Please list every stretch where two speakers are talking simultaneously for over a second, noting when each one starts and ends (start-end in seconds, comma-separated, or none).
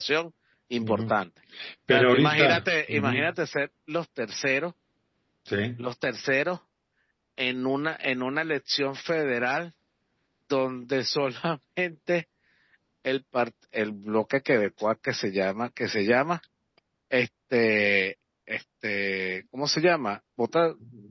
1.9-3.2